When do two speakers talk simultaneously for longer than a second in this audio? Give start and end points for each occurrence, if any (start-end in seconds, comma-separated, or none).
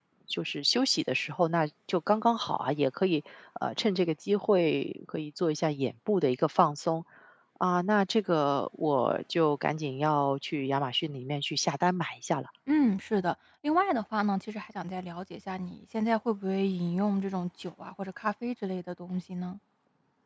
none